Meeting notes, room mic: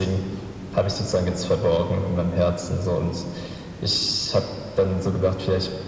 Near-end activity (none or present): none